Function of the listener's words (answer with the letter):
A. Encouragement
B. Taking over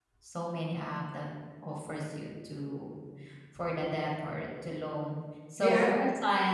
A